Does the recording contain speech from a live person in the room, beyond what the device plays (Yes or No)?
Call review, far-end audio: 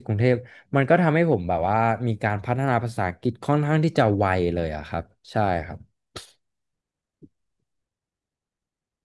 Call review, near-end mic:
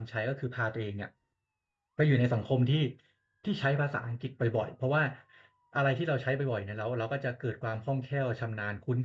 Yes